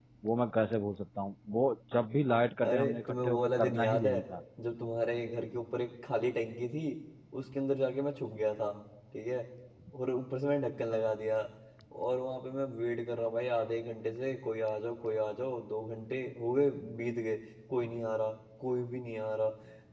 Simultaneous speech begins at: 2.6 s

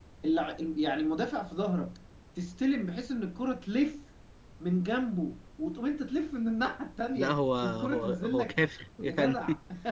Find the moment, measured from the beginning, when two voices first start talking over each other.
7.2 s

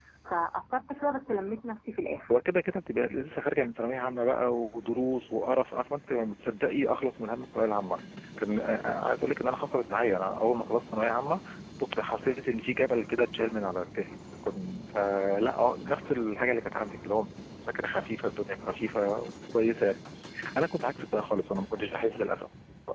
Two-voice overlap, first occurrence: none

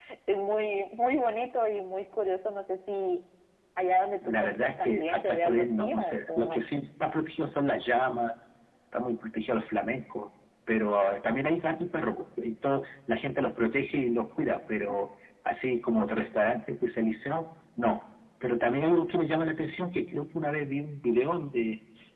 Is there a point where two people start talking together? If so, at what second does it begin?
4.2 s

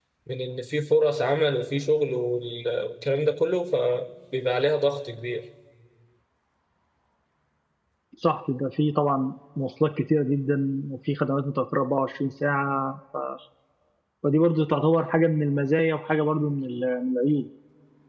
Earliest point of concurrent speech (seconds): none

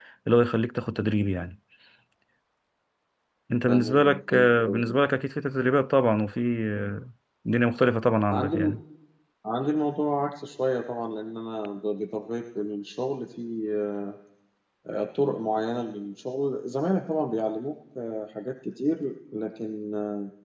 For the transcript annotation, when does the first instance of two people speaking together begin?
3.7 s

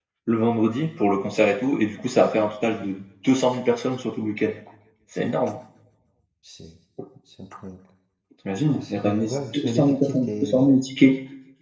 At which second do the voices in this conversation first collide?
8.8 s

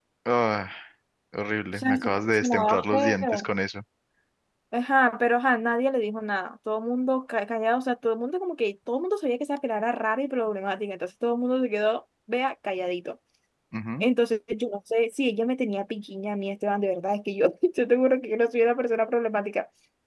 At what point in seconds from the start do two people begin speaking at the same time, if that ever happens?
1.8 s

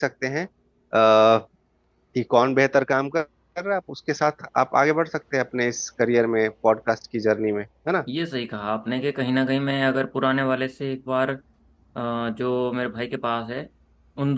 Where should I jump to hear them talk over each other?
none

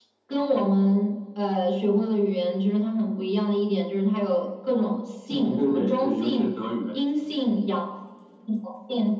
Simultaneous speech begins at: 5.3 s

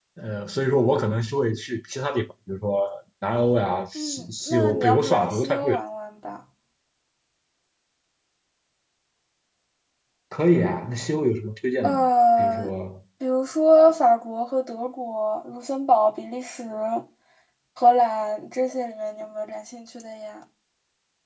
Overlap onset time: 4.0 s

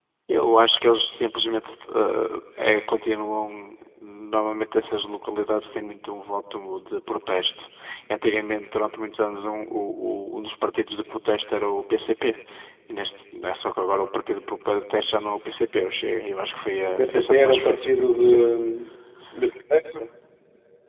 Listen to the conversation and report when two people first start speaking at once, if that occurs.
17.0 s

